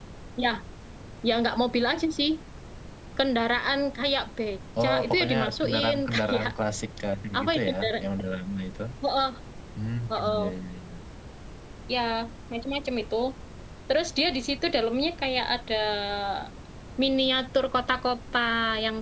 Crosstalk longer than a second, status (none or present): present